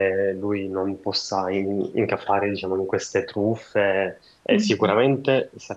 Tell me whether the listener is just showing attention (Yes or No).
Yes